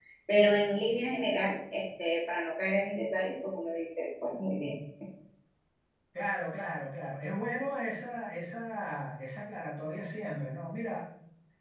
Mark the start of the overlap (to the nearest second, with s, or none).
none